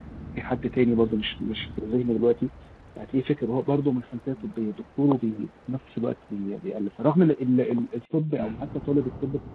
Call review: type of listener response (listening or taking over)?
listening